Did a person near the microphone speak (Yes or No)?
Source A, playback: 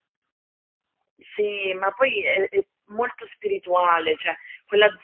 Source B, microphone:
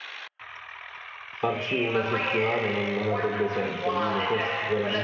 Yes